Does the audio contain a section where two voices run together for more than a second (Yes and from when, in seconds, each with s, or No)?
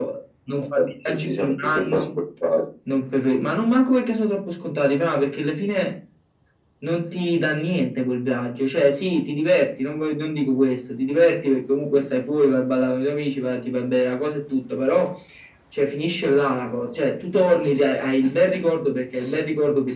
Yes, from 0.8 s